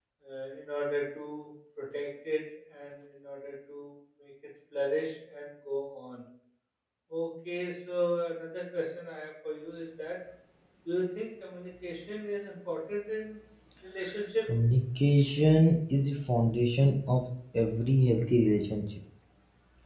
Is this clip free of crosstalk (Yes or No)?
Yes